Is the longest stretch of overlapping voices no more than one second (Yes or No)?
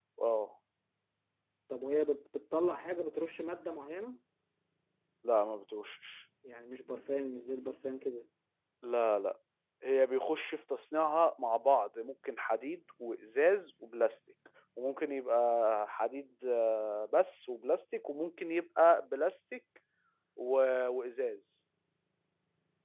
Yes